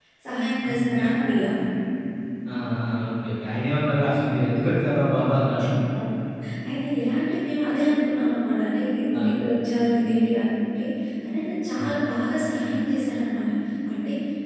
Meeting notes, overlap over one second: none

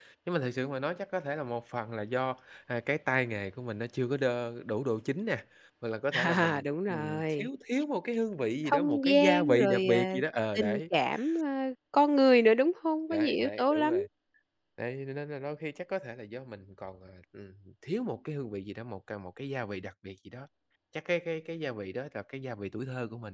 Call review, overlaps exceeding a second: present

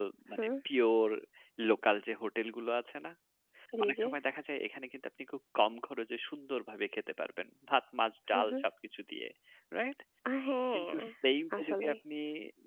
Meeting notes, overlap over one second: none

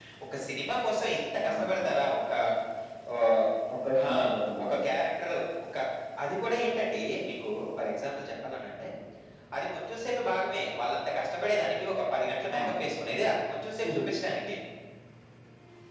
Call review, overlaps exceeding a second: none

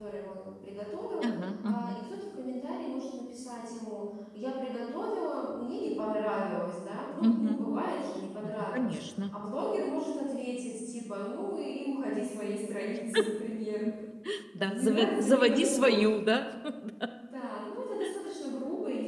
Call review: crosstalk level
present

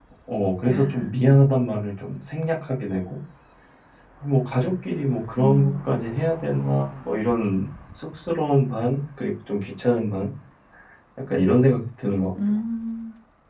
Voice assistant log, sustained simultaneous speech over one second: none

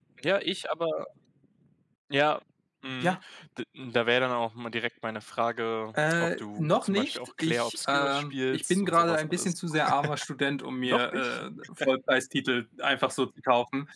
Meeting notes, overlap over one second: present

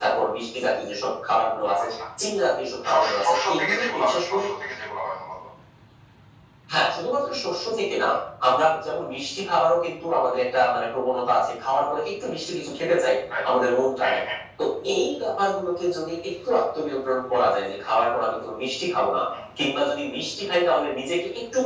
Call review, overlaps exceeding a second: present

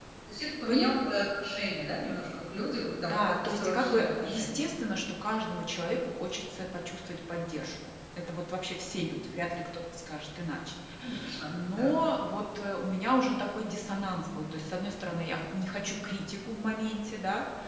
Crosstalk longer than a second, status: present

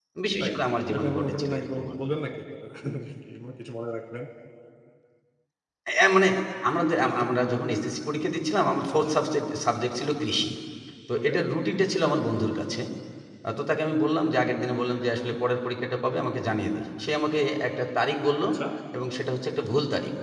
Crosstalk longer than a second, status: present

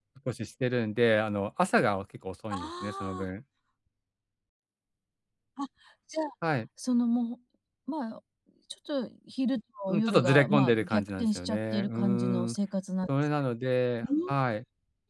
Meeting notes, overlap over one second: present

